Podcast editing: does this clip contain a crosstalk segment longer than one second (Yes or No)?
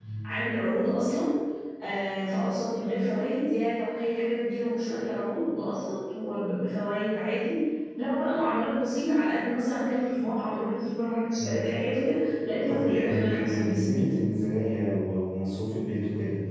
Yes